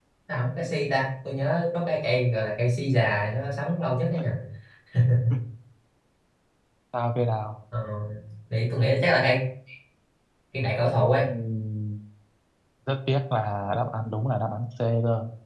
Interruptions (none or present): none